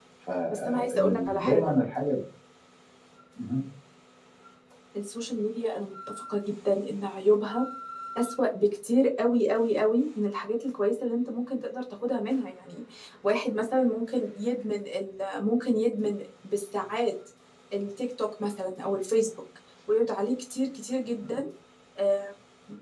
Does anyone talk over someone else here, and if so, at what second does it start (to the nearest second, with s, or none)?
1 s